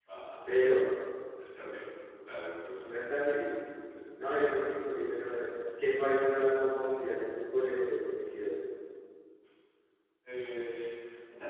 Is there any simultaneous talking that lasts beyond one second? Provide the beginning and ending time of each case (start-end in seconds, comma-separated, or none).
none